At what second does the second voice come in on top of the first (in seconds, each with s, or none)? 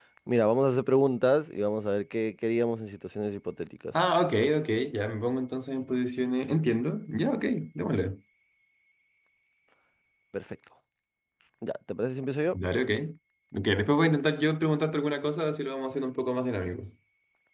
none